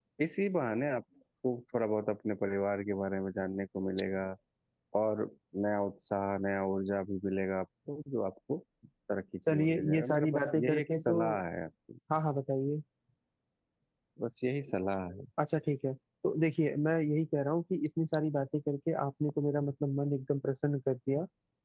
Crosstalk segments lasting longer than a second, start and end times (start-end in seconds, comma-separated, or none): 9.5-11.1